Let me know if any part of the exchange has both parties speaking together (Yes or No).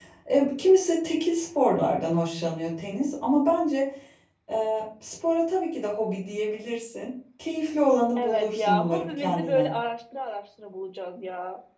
Yes